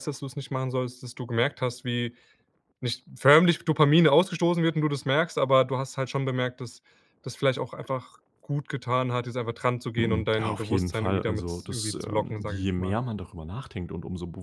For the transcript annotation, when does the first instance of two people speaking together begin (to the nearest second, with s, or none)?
10 s